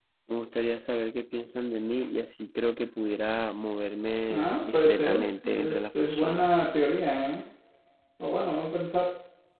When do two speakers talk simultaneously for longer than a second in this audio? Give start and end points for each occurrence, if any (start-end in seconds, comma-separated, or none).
4.3-6.5